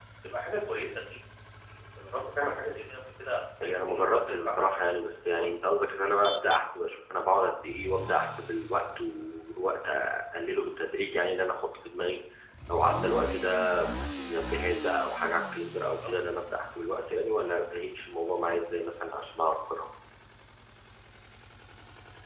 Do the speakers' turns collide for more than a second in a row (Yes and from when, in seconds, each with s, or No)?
Yes, from 3.6 s